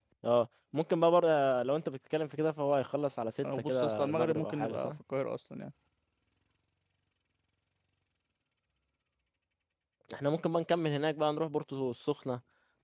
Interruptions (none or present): present